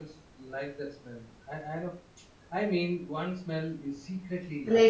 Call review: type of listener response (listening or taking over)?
taking over